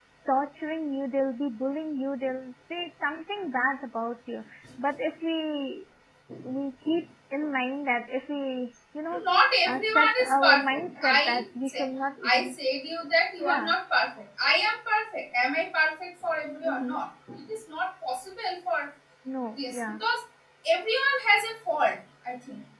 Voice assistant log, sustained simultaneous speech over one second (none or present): present